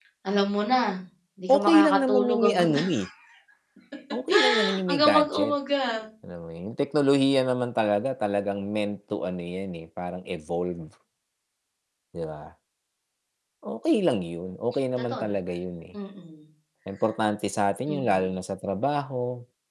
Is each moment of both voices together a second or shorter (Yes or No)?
No